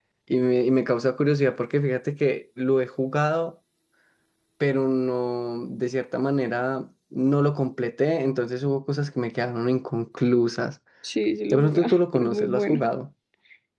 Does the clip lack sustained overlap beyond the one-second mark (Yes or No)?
No